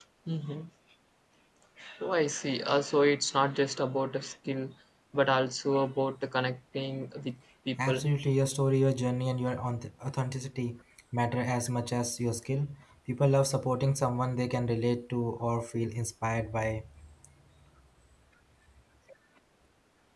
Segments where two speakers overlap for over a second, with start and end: none

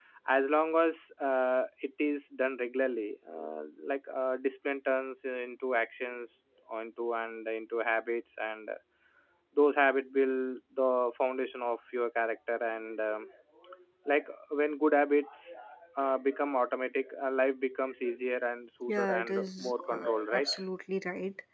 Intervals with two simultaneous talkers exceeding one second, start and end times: 18.9-20.5

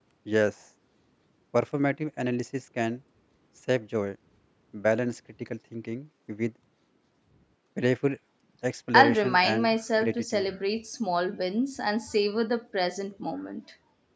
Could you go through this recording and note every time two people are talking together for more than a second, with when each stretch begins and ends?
8.9-10.4

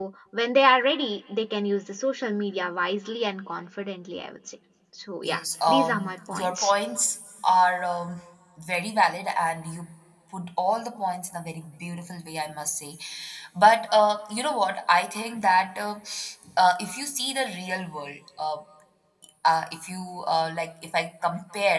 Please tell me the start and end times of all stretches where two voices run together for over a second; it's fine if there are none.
5.2-6.7

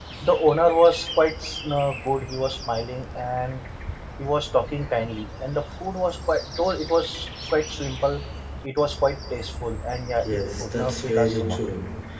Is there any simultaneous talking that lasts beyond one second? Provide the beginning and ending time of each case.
10.2-11.6

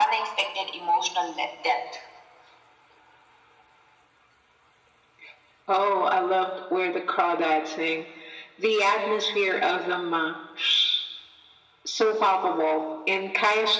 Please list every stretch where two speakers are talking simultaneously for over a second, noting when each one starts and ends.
none

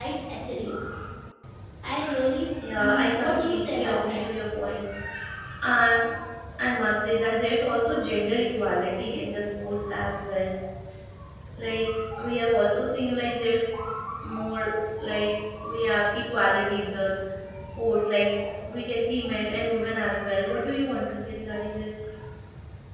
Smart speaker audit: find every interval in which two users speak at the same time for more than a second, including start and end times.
2.8-4.2

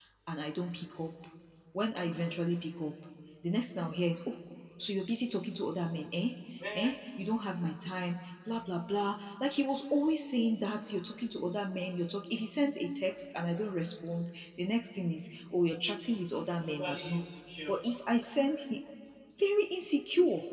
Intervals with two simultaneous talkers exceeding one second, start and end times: none

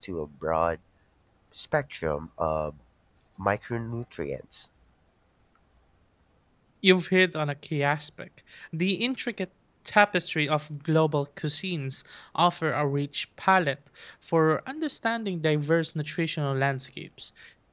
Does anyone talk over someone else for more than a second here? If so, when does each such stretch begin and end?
none

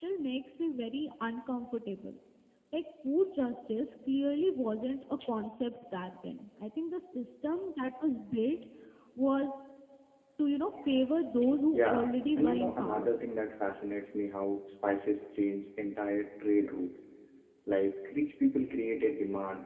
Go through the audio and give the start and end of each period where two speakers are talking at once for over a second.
11.7-13.1

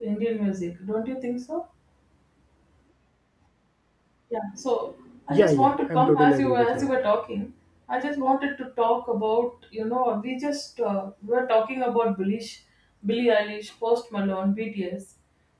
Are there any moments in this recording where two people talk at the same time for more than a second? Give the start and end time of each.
5.3-6.9

